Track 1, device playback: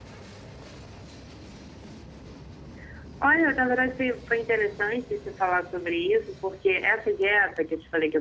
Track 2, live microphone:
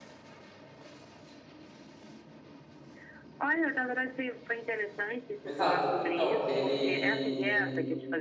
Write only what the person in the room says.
Exato. Então, ele.

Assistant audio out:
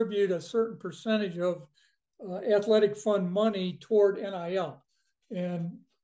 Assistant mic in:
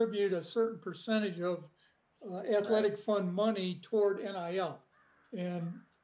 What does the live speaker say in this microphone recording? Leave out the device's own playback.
Right, of

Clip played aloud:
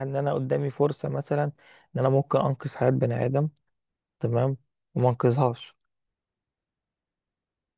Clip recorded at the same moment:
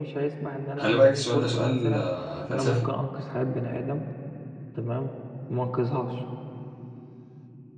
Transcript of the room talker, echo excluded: خلي بالك السؤال ده سؤال آه، فلسفي

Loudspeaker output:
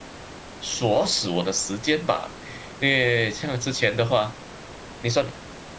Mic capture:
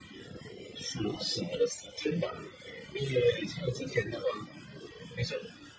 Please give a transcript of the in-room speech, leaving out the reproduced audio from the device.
none

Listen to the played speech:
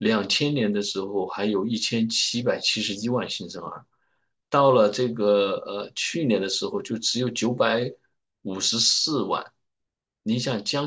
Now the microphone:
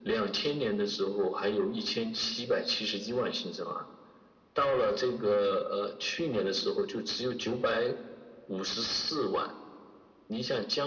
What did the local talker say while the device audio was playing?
none

